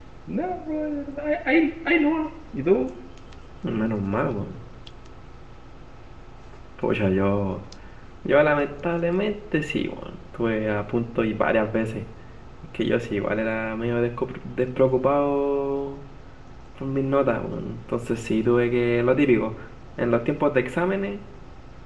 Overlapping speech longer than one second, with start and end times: none

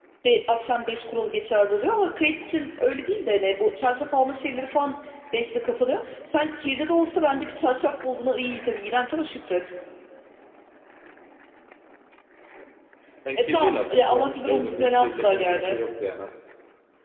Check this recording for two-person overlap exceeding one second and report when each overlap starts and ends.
13.4-15.8

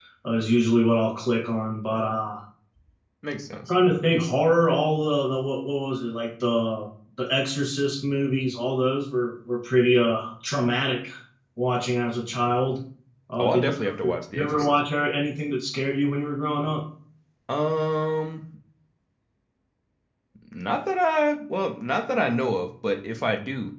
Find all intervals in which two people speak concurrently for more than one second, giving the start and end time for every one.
13.4-14.7

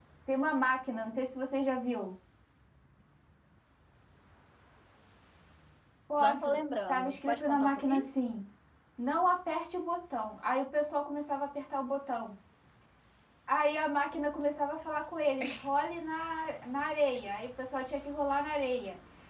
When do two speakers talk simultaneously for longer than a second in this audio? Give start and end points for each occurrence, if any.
6.9-8.1

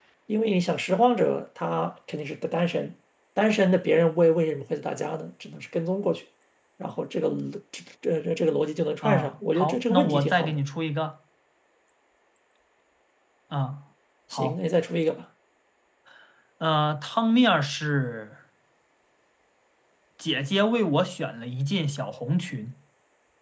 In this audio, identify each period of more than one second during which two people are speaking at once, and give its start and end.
9.0-10.6

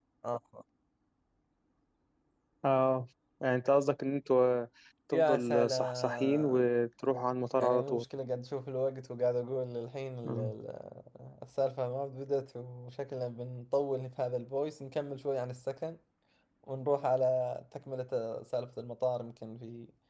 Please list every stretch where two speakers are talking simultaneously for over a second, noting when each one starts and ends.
5.1-6.7

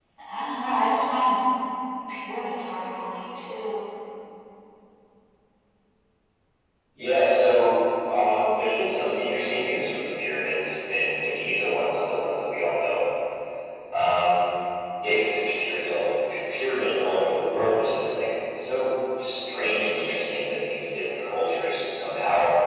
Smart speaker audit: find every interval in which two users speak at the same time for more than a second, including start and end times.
none

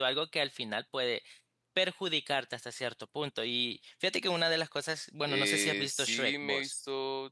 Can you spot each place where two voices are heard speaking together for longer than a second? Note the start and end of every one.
5.3-6.7

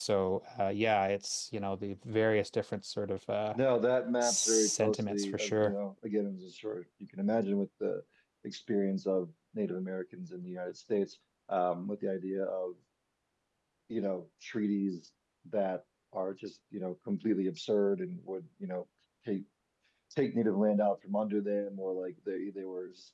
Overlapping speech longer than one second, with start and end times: 4.2-5.7

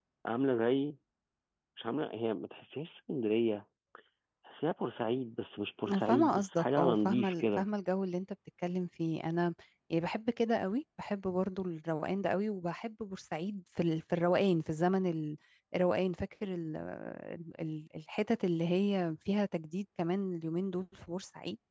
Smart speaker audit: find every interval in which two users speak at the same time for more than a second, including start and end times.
5.8-7.6

